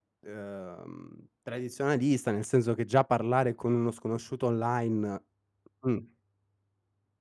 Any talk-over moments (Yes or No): No